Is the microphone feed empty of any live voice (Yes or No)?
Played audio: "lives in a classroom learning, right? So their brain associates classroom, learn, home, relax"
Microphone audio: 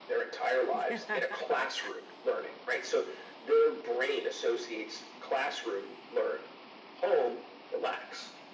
No